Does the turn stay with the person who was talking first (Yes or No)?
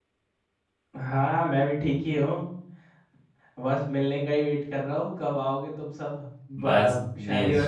No